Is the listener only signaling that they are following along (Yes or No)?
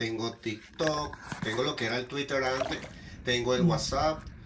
Yes